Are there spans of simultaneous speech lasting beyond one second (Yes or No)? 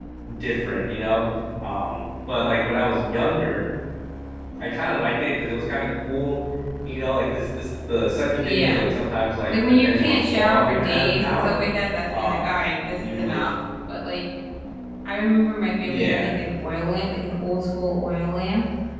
Yes